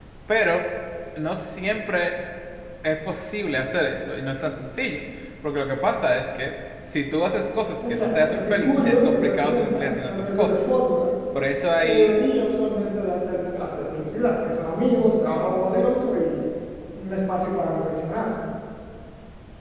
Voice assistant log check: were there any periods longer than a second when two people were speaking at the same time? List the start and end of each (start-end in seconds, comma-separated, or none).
7.9-10.6